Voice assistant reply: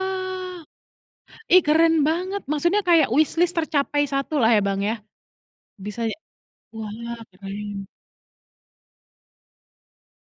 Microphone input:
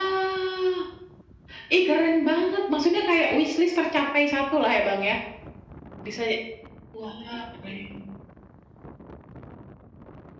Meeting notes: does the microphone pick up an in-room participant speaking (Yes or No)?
No